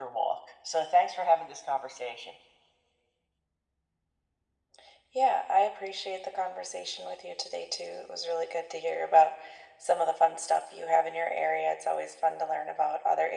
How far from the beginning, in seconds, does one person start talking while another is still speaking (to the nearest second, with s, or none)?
none